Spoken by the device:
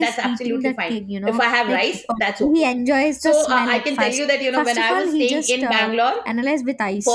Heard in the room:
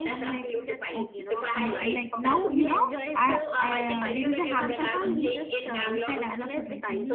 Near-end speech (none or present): present